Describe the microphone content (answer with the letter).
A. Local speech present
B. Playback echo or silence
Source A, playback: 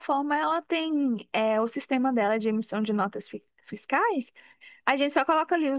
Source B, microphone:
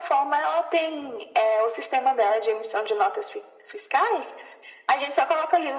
B